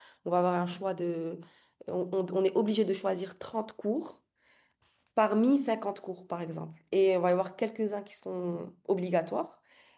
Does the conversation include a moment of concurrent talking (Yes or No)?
No